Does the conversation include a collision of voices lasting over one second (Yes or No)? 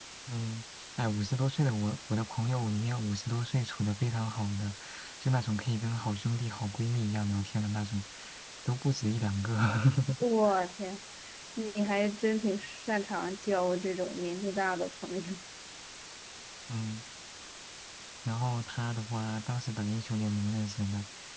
No